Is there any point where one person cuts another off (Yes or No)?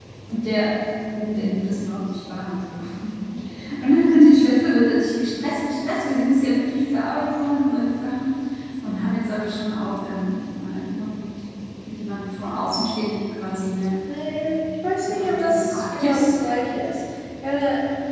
Yes